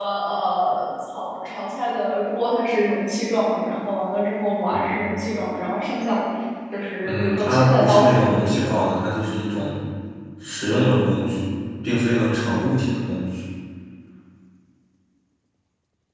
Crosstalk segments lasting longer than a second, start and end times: 7.0-8.9

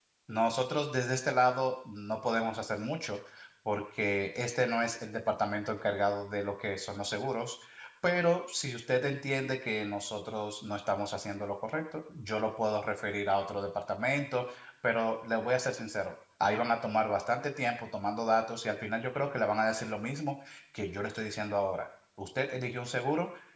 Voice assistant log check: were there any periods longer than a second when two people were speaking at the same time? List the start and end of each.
none

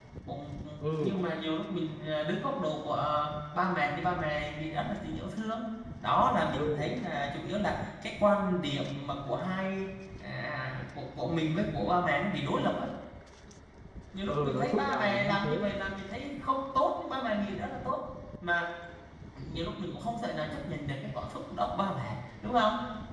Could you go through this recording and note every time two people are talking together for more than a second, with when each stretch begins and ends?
14.3-15.5

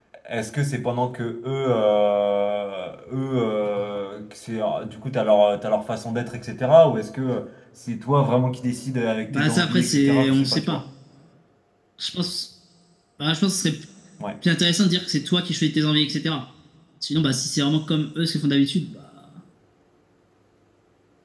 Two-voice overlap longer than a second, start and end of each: 9.3-10.8

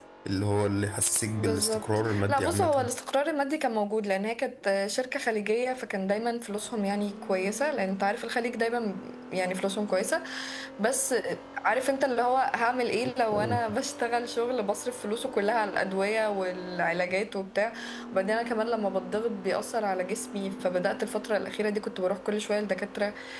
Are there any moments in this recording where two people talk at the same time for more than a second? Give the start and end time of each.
1.4-2.9

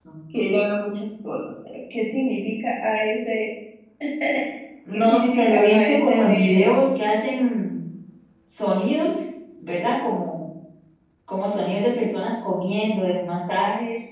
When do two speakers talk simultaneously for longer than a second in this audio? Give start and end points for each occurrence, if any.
4.9-6.7

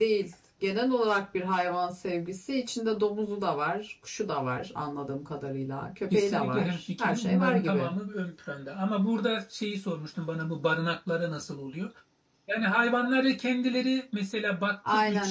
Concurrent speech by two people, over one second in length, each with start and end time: 6.1-7.9

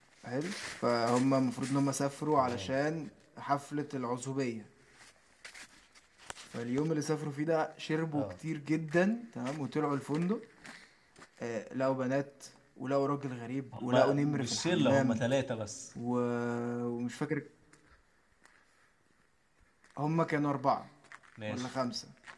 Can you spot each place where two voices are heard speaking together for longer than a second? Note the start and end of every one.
13.8-15.2

